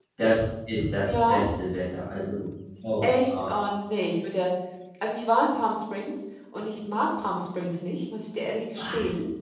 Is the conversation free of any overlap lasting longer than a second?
Yes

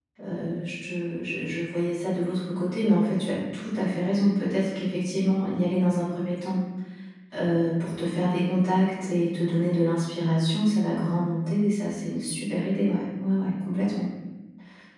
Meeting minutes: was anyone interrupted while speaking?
No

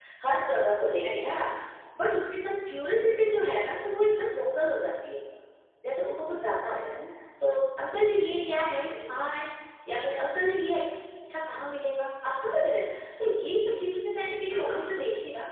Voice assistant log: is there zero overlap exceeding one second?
Yes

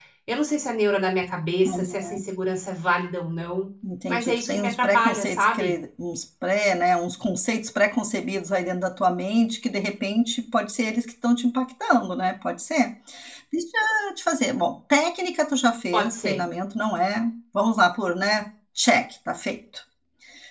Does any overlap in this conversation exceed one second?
Yes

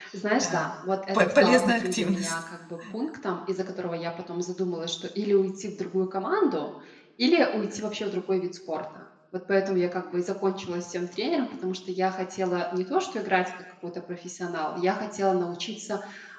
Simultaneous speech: Yes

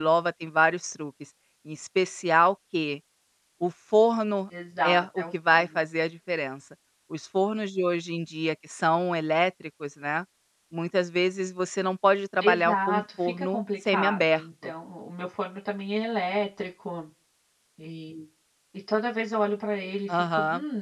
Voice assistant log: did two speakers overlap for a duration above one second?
Yes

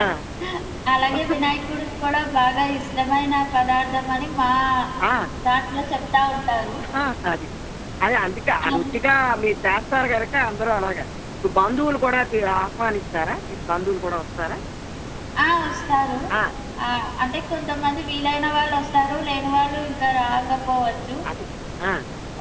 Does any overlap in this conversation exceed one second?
No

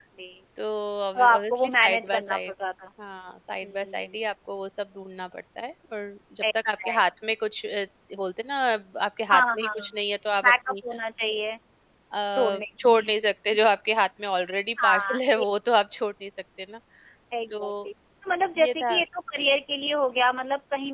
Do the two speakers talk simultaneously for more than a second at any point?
Yes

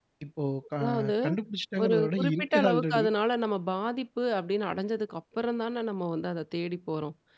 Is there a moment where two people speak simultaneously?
Yes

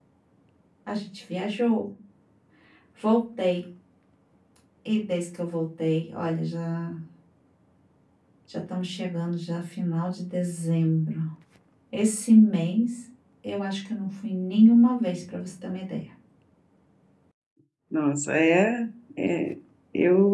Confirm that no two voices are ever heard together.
Yes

